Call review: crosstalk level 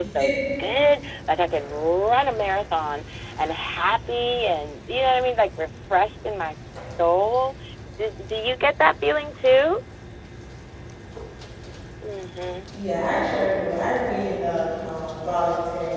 none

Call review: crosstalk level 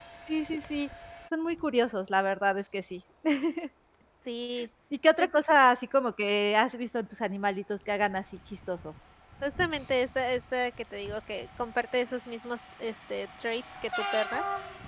none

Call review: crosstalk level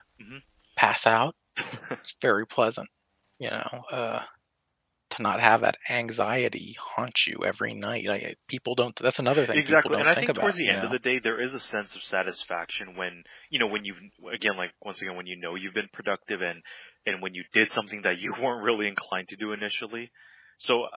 present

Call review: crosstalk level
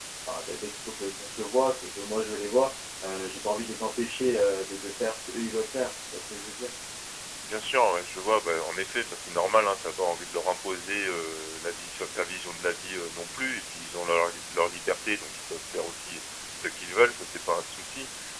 none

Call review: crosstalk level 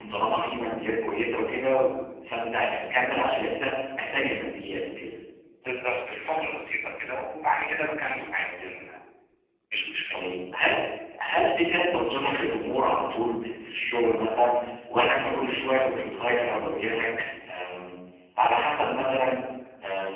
none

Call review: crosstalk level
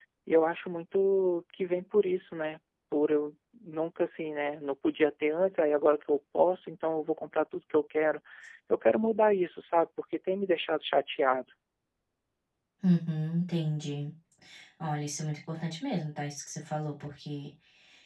none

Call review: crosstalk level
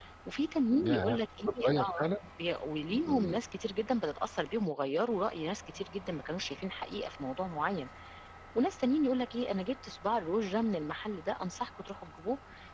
present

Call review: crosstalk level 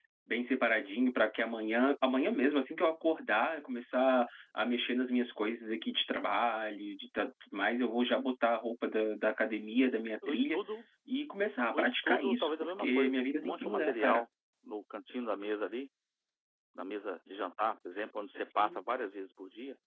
present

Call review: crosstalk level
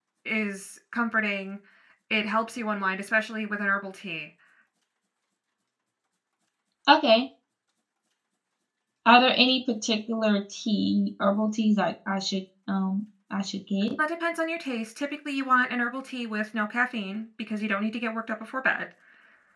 none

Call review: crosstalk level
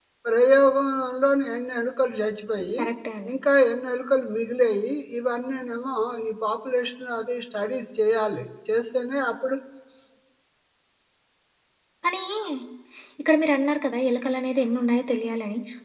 none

